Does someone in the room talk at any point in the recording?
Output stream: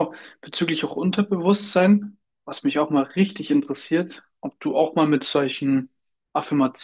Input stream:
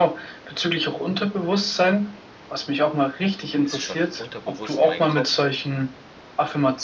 Yes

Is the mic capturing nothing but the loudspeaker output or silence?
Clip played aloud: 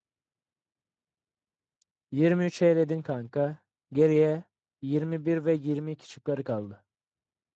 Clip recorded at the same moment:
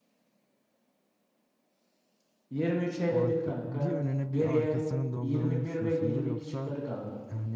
No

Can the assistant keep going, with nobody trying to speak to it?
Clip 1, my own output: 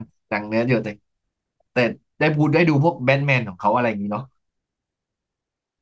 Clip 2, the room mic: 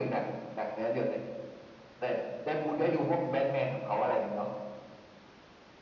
Yes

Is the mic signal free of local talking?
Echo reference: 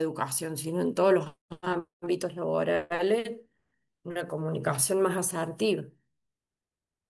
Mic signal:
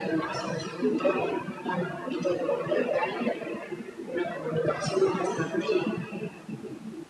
Yes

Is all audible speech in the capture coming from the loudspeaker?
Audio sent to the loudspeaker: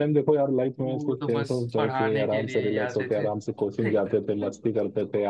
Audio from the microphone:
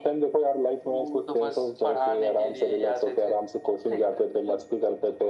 Yes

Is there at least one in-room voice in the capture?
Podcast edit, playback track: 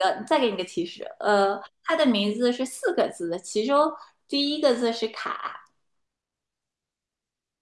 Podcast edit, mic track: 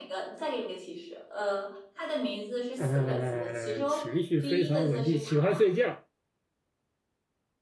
Yes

